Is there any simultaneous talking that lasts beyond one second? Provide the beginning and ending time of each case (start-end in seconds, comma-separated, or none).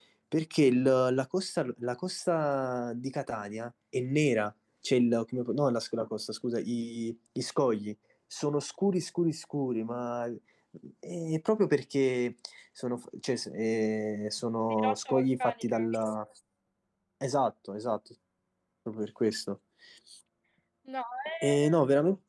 14.7-15.9